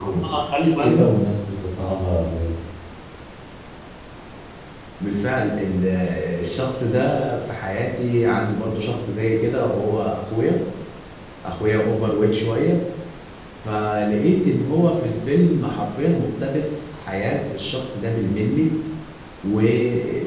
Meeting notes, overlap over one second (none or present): none